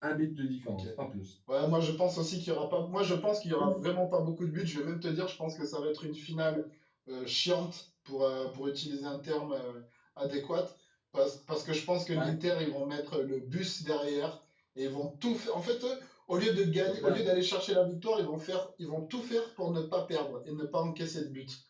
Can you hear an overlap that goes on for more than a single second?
No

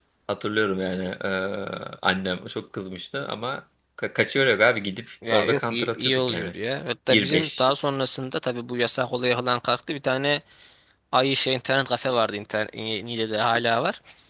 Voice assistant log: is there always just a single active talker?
No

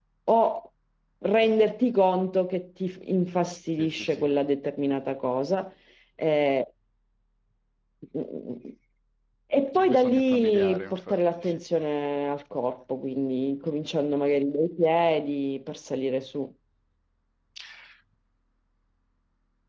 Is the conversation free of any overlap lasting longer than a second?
No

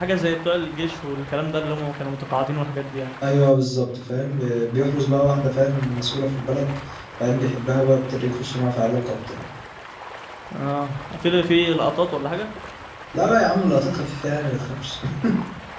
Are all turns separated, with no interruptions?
Yes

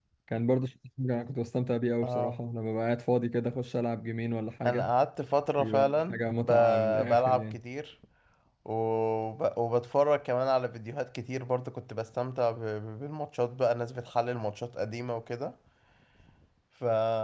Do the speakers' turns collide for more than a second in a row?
Yes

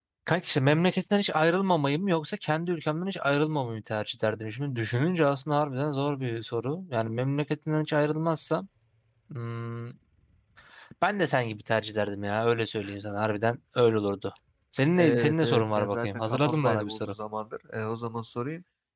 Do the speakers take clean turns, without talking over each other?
No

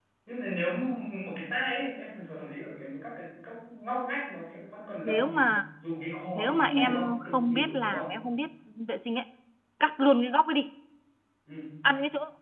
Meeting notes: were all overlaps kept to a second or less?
No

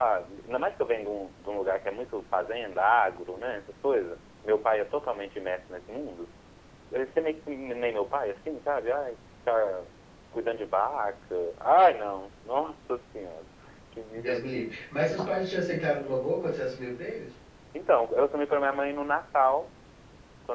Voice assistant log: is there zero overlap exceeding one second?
Yes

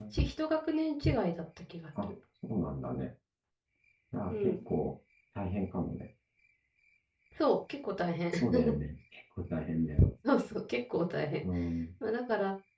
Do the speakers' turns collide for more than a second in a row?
No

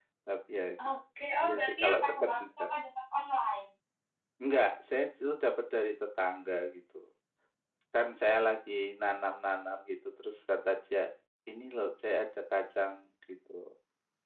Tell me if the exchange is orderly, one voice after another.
No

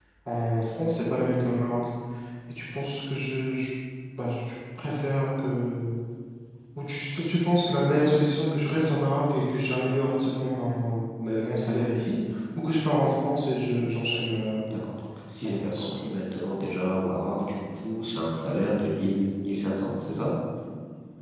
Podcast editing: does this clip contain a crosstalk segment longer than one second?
No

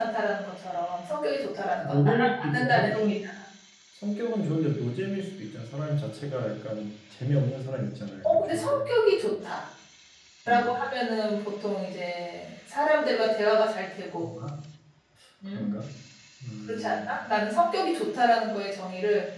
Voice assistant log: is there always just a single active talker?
No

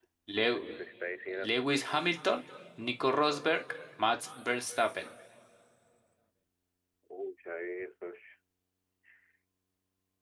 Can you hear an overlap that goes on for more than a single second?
No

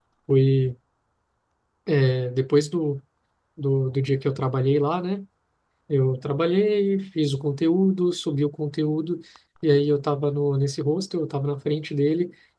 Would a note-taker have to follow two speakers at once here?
No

